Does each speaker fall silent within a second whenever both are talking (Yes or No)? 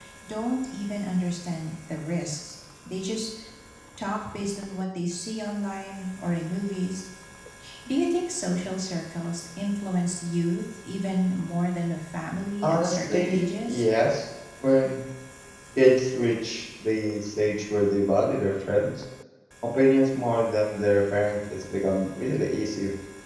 No